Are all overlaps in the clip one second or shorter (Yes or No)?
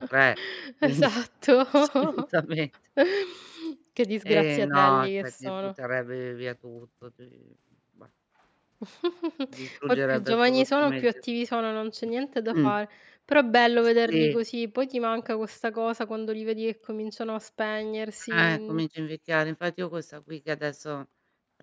No